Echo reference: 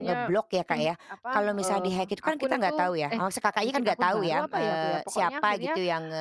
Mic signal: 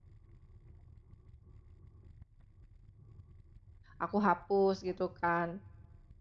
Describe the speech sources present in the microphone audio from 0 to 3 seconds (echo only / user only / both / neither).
neither